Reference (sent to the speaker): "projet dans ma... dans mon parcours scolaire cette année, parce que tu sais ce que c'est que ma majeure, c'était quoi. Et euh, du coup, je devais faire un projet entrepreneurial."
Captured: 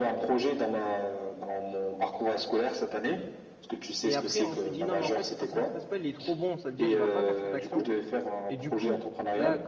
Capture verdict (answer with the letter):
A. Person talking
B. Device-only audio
A